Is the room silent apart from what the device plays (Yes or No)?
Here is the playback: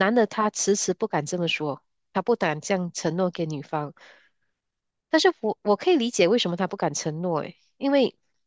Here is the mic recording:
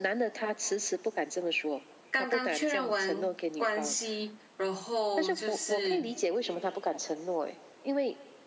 No